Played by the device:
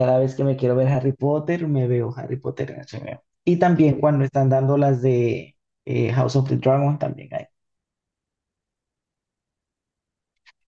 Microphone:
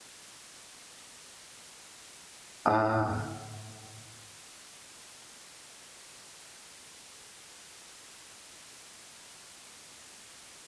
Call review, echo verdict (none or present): none